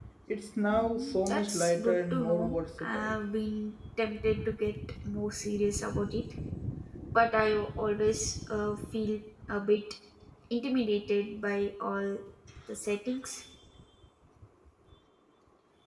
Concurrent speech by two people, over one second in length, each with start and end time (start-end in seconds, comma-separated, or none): 0.7-3.1